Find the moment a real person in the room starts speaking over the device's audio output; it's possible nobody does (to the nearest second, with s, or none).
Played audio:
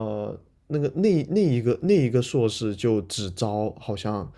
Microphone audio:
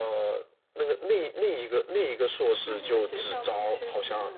3 s